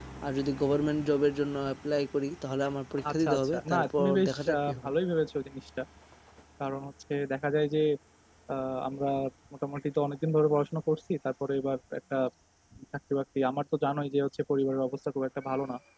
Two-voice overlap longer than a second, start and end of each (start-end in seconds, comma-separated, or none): 3.1-4.9